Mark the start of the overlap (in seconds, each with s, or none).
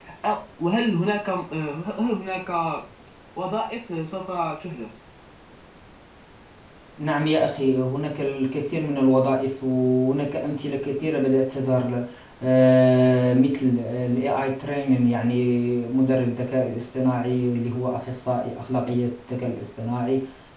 none